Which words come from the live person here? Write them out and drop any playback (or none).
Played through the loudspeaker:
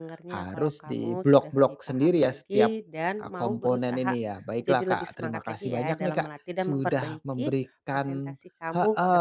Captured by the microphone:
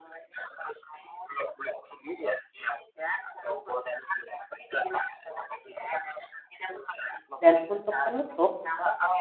Dan untuk penutup,